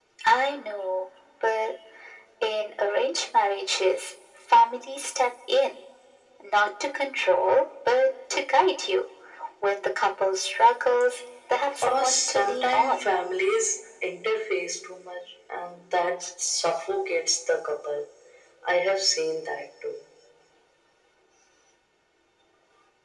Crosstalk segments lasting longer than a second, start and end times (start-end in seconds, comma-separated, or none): 11.8-13.1